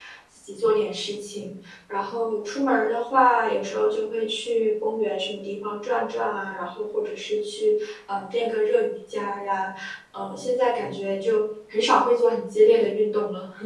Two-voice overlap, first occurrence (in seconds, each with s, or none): none